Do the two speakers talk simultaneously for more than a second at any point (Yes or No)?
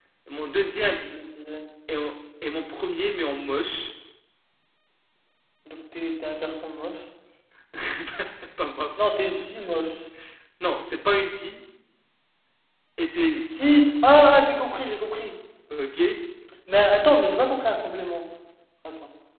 No